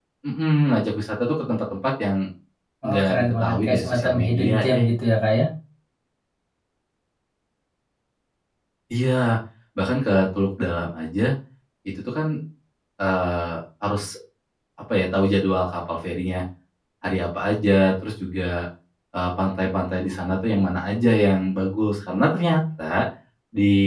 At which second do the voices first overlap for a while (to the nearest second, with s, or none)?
3 s